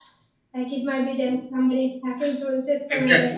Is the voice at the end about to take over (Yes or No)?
Yes